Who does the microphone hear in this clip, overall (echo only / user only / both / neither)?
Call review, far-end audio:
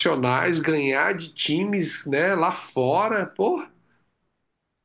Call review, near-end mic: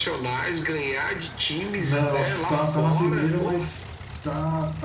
both